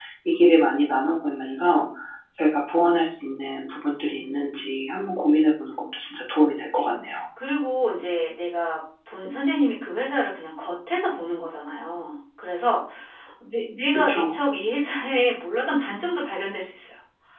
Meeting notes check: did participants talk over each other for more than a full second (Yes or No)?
No